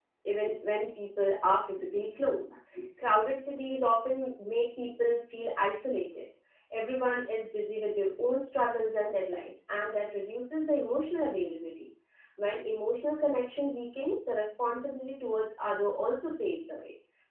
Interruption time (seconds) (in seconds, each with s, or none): none